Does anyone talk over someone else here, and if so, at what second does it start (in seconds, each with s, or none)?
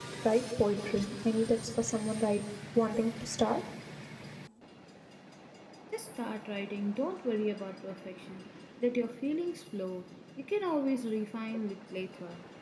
none